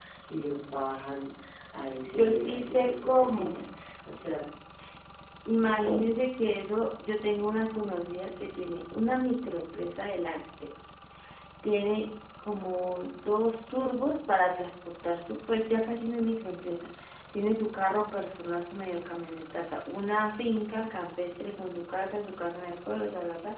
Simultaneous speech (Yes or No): Yes